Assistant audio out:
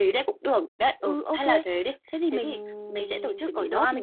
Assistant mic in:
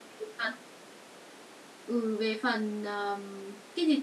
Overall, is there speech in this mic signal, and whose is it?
user only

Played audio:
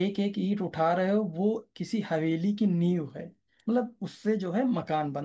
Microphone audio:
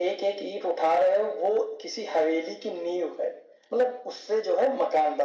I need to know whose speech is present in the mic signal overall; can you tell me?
echo only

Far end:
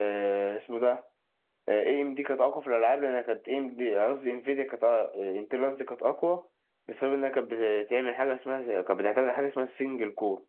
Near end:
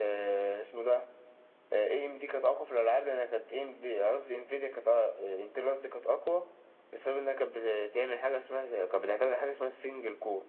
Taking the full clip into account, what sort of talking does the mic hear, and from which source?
echo only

